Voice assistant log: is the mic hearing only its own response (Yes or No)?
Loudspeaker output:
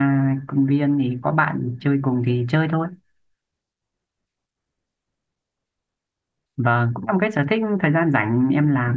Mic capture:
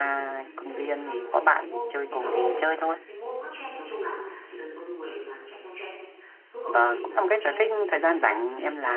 No